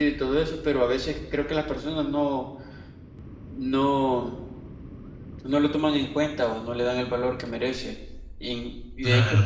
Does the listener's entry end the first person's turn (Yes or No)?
No